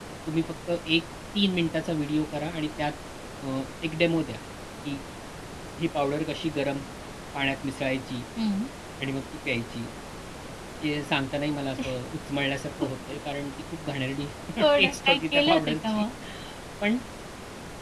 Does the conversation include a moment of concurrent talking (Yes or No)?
Yes